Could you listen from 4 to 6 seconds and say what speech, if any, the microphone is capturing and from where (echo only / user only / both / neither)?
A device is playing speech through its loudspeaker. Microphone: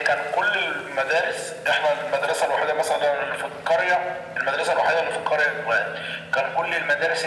echo only